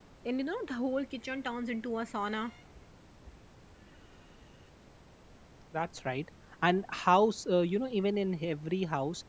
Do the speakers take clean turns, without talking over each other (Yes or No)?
Yes